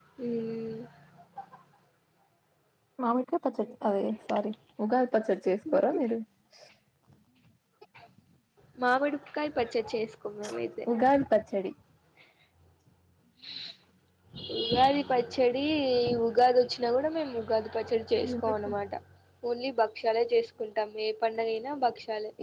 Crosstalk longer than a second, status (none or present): none